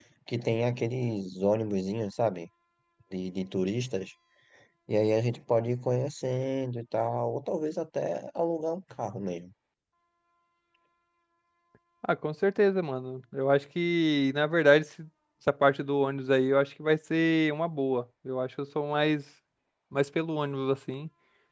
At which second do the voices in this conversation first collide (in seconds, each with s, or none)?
none